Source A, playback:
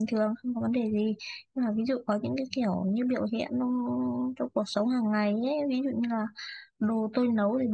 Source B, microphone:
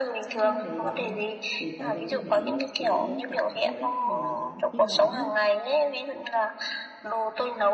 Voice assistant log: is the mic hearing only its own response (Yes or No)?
No